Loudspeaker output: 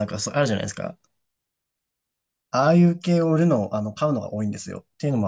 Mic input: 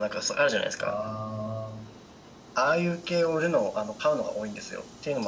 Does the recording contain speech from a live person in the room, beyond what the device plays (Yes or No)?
Yes